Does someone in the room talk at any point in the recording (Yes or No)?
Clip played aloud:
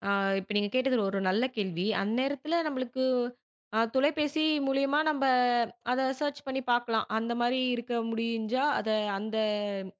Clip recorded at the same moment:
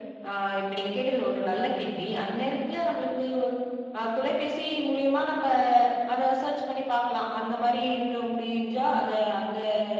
No